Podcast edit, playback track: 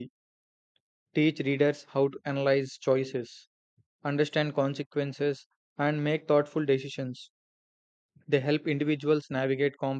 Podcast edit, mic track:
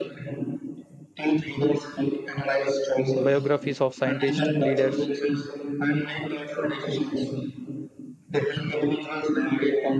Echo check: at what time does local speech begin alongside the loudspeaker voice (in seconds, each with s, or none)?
3.2 s